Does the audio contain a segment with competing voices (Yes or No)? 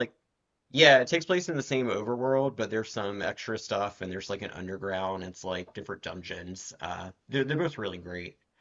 No